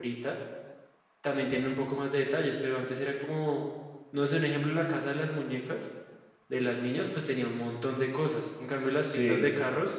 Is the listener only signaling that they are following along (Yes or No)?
Yes